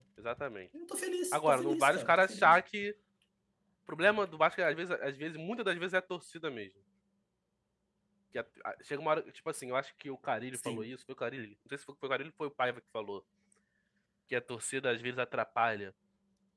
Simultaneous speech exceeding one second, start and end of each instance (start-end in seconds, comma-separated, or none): 1.3-2.6